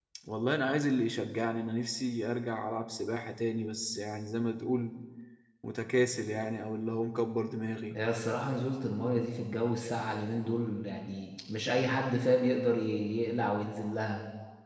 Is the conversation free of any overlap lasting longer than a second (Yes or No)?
Yes